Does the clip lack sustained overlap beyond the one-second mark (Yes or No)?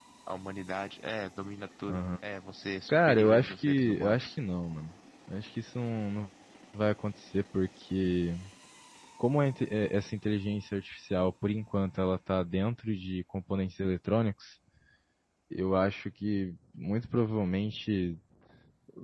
No